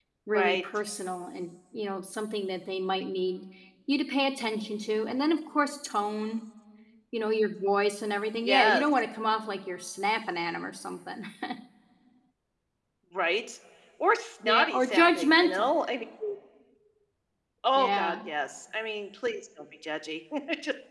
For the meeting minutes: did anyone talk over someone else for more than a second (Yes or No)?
Yes